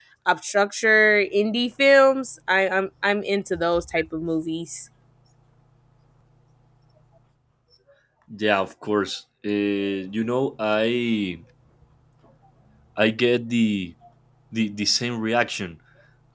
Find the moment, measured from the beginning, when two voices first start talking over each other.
none

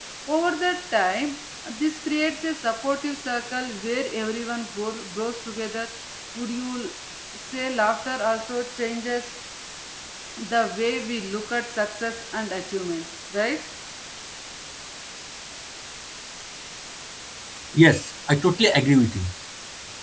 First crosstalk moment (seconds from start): none

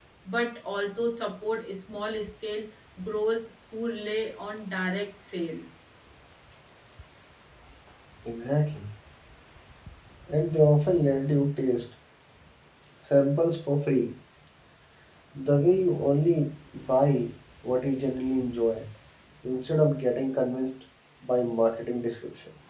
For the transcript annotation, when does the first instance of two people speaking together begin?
none

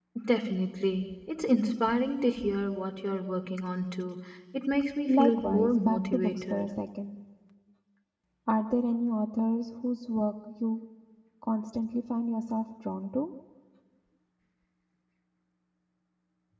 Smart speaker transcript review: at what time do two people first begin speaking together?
5.1 s

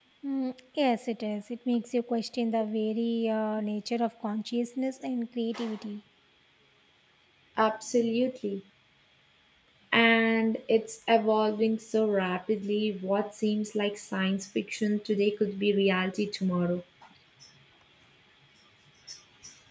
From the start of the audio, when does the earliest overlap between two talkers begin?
none

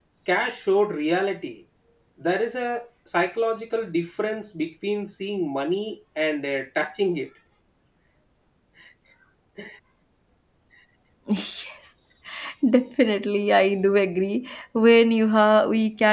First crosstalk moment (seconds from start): none

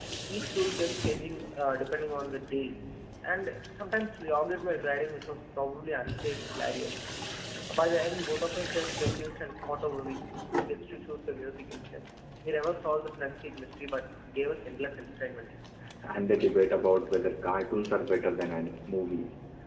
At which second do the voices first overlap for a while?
none

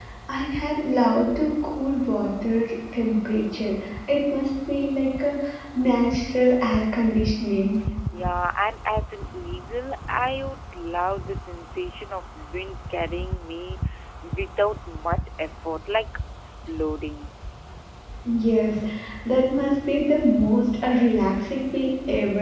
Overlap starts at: none

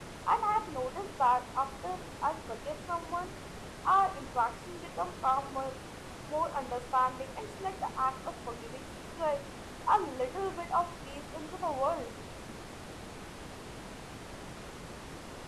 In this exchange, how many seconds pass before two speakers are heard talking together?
none

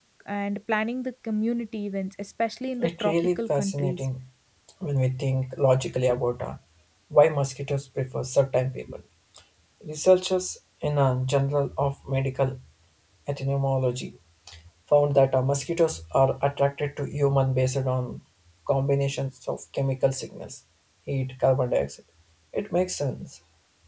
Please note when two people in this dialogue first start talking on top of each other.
2.8 s

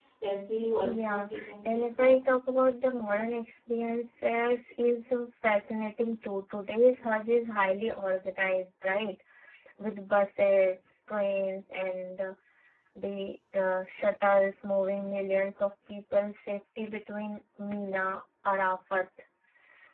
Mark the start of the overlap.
0.8 s

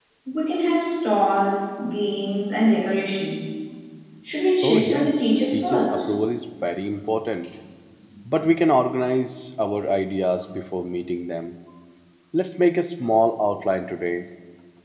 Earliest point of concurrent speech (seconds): 4.6 s

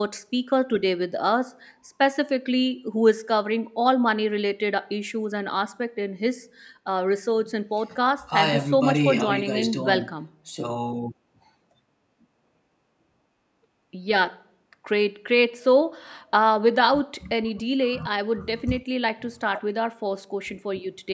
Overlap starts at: 8.3 s

